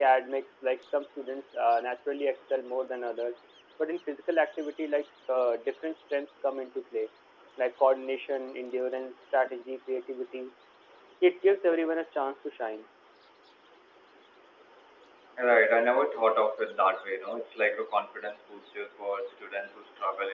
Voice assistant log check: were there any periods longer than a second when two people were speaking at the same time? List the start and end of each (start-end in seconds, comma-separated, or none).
none